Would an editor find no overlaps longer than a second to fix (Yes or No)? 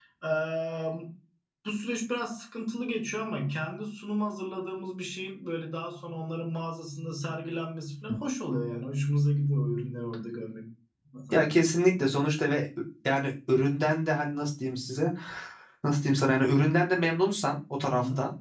Yes